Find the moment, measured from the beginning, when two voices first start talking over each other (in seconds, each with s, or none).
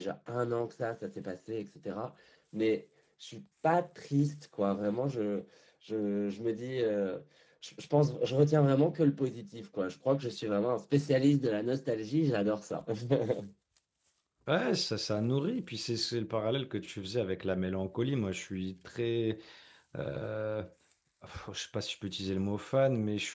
none